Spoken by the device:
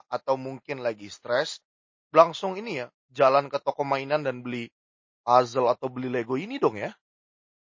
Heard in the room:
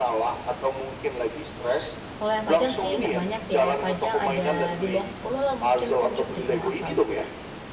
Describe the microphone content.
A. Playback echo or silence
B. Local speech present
B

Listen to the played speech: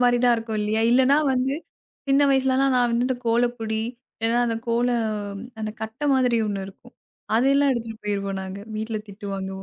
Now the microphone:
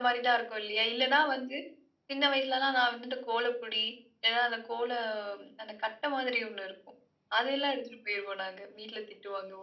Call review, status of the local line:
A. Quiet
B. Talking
A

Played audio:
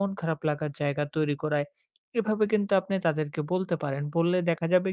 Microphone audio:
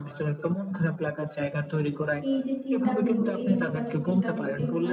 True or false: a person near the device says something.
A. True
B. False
A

